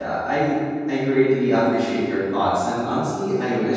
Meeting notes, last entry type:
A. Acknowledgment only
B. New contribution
A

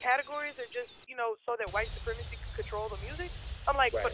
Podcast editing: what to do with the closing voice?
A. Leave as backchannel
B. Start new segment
A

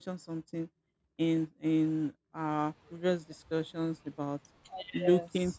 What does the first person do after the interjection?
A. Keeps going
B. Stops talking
A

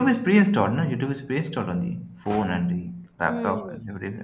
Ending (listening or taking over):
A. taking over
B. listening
A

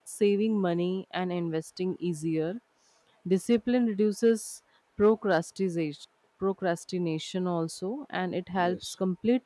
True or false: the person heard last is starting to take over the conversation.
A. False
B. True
A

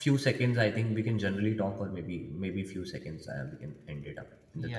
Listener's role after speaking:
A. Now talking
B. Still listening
A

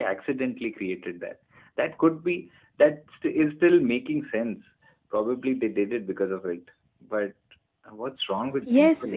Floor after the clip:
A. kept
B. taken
B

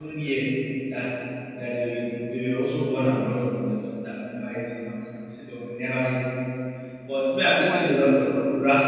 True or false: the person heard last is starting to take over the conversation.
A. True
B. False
B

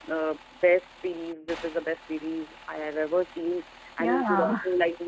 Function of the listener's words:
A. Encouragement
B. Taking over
A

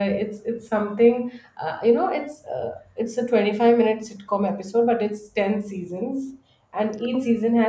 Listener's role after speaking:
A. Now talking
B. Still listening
B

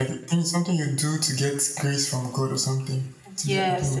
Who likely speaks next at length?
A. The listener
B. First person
A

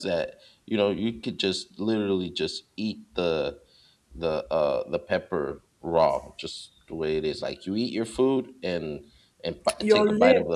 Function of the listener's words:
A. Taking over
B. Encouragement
A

